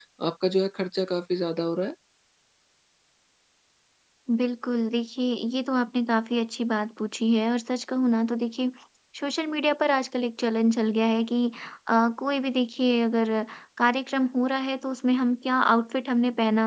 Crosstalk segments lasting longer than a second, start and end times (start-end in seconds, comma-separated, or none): none